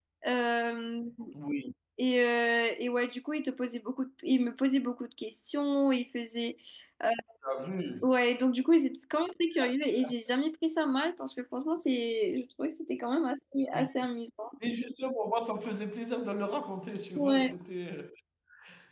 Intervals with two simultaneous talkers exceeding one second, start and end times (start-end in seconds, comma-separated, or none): none